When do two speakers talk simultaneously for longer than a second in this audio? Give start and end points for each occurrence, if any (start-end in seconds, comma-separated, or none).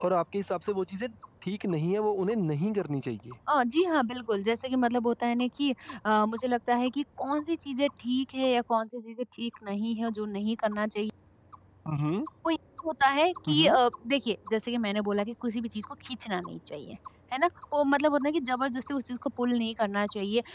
none